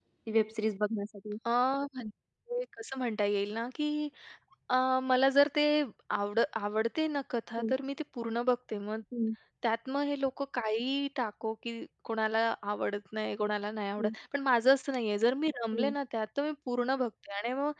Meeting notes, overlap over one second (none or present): none